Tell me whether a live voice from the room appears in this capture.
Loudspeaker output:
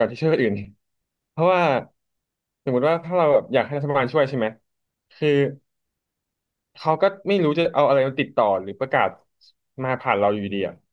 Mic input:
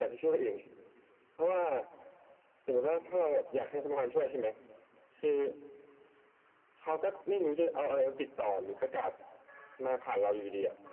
No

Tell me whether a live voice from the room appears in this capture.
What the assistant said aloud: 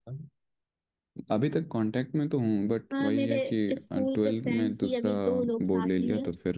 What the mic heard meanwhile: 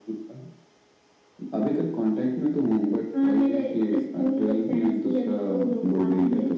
No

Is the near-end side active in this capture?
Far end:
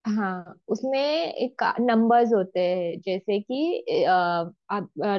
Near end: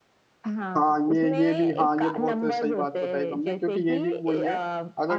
Yes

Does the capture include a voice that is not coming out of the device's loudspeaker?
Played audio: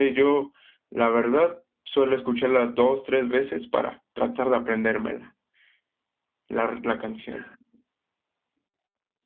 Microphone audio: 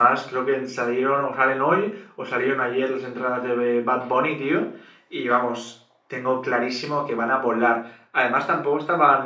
Yes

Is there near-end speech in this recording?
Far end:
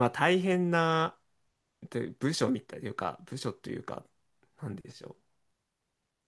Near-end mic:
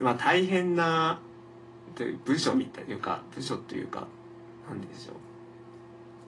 No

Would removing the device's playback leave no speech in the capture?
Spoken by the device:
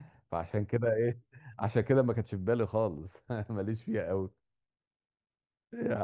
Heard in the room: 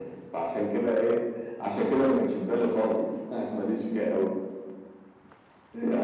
Yes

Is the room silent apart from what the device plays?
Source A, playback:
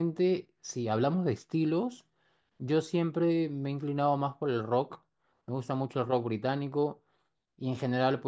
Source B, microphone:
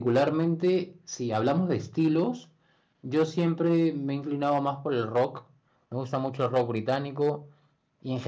Yes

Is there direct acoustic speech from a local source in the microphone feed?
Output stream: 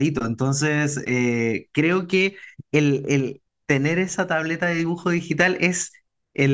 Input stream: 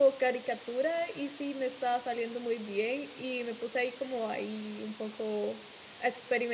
Yes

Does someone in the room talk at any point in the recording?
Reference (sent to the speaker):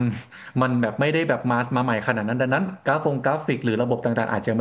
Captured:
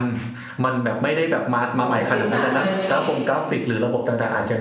Yes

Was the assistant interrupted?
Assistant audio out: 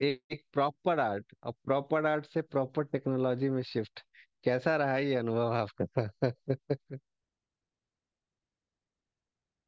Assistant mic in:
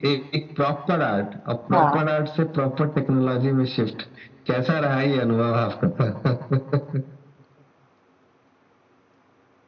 Yes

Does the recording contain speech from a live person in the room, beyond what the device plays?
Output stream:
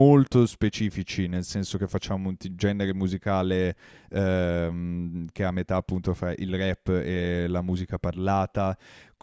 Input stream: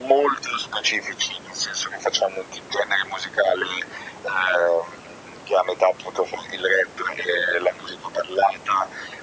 No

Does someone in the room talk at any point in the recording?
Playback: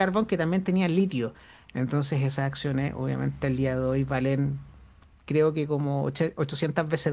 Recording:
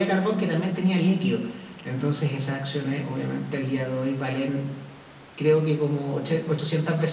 No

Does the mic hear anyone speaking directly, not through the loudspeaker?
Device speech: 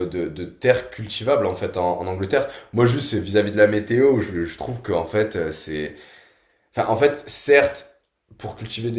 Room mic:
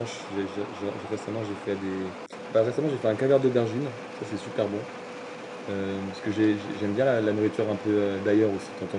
Yes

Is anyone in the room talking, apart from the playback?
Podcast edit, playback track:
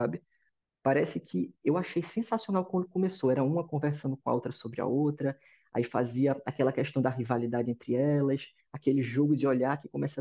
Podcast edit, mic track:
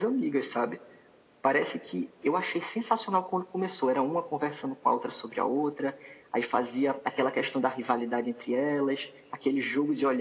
No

